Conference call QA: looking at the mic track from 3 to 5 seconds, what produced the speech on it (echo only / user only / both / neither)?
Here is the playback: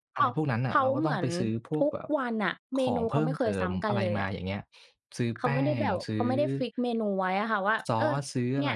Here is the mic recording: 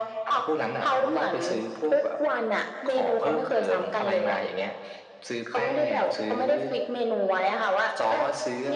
echo only